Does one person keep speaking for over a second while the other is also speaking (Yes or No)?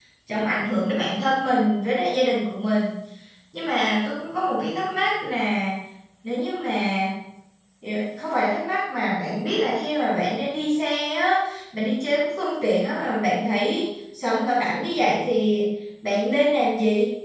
No